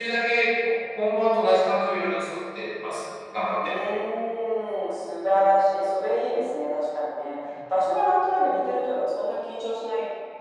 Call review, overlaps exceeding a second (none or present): none